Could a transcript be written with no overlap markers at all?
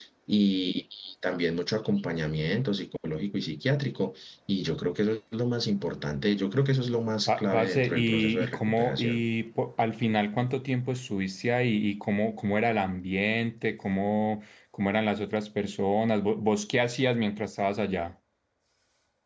No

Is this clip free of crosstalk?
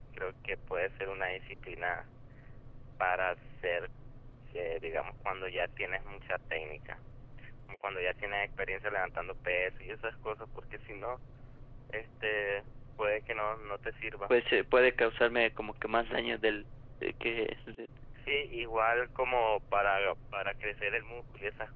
Yes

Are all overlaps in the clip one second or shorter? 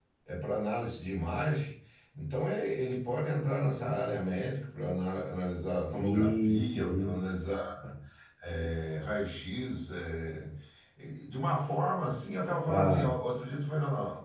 No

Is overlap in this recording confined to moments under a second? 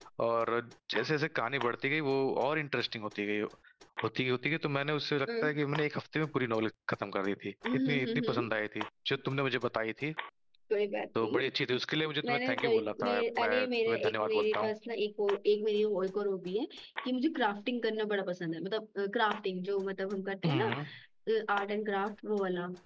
No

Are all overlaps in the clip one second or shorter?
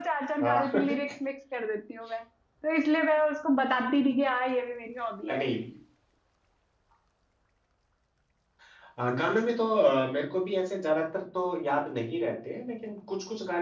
Yes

